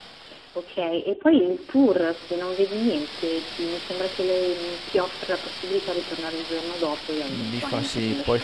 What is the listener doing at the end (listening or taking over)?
taking over